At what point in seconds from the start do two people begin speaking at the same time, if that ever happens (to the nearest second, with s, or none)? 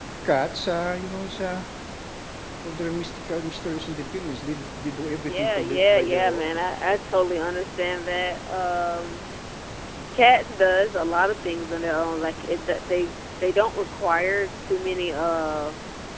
5 s